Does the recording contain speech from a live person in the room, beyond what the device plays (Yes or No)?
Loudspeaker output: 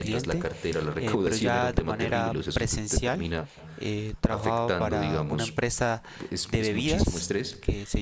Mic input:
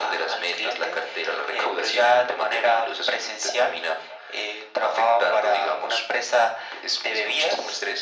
No